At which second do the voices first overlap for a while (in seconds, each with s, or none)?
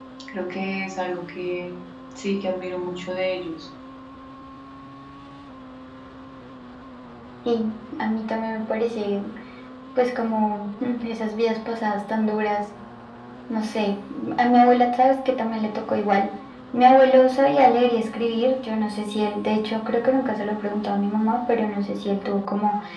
none